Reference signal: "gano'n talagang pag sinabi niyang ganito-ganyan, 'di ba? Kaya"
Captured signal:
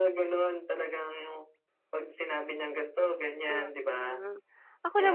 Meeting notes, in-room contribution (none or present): present